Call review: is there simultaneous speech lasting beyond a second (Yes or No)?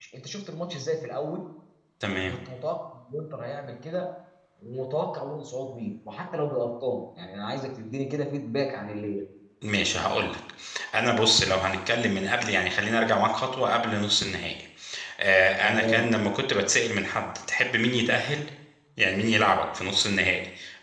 No